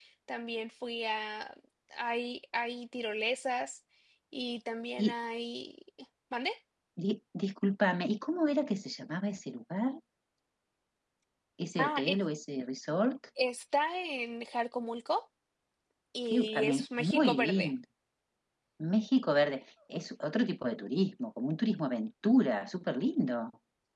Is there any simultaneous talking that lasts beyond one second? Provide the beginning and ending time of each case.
16.3-17.7

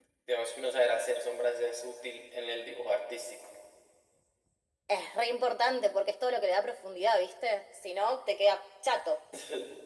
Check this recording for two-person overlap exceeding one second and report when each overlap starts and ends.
none

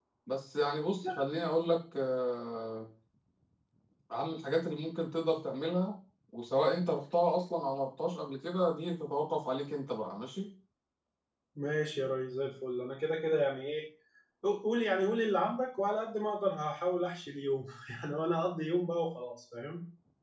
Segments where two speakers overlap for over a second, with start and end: none

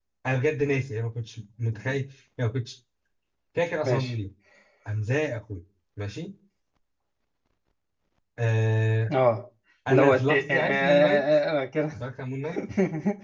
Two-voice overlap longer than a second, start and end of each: 9.9-11.2

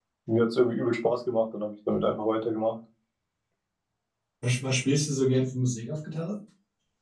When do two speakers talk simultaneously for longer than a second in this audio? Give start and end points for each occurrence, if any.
none

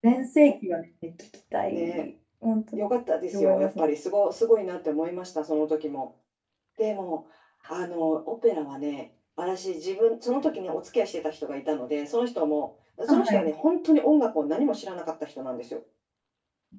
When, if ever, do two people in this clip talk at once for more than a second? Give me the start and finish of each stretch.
none

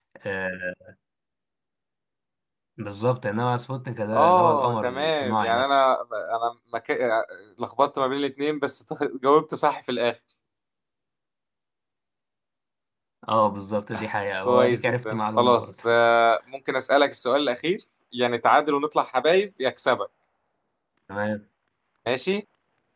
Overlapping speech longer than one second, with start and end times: 4.1-5.8, 14.4-15.7

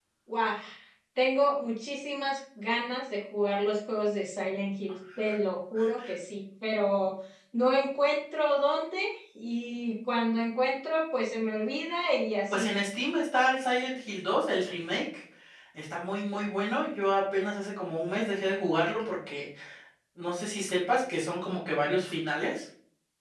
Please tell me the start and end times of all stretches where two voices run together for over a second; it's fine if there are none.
none

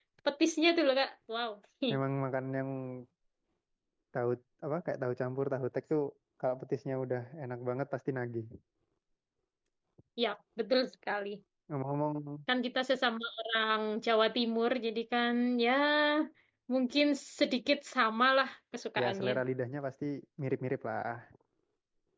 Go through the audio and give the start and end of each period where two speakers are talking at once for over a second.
none

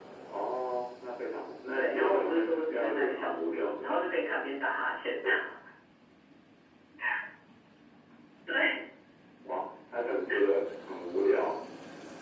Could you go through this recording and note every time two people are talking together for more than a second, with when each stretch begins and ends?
1.7-3.9

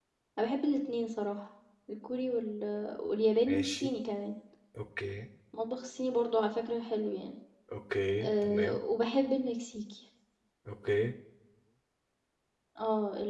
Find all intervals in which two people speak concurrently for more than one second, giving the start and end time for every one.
none

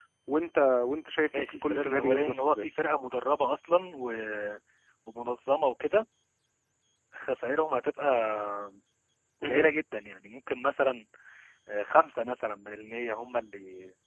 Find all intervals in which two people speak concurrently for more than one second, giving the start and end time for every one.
1.4-2.7

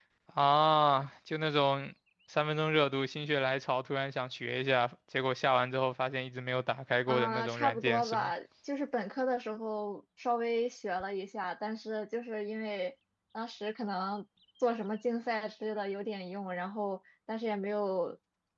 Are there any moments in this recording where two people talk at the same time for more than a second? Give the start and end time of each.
7.1-8.3

